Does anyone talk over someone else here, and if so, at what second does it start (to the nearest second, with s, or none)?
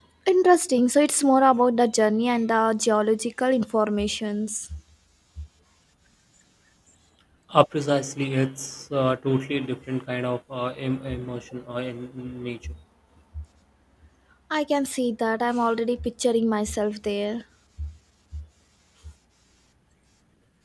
none